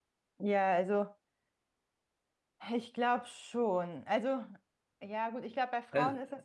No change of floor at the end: Yes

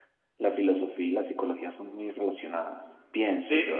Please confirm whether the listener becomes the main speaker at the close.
Yes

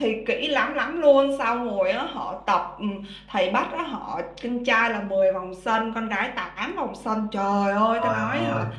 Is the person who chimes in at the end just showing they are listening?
Yes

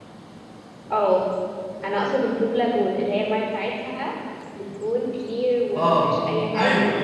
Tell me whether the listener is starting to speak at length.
Yes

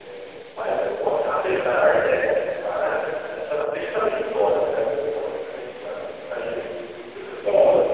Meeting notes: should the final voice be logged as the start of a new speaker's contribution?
No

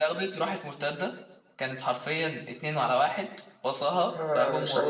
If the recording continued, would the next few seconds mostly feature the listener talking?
Yes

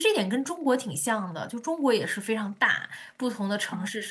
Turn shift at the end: No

